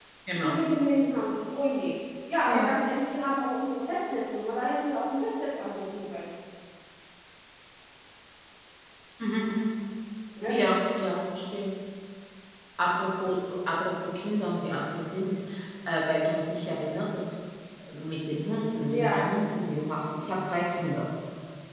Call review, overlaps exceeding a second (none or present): none